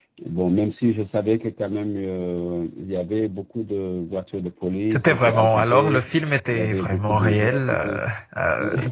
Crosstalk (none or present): present